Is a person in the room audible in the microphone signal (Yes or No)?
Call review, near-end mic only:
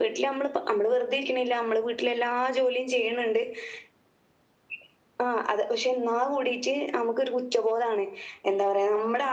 No